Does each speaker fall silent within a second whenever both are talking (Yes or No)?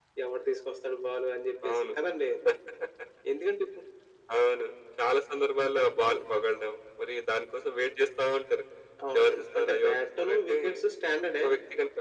No